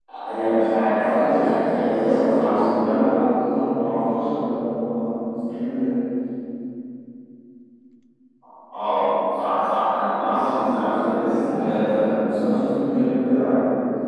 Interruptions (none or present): present